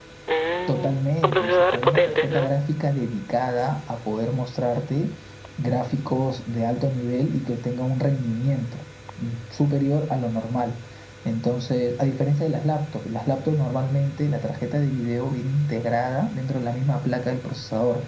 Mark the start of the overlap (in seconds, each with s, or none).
0.7 s